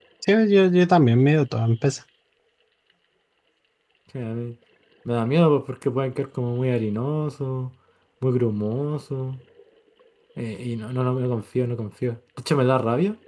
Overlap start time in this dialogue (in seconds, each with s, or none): none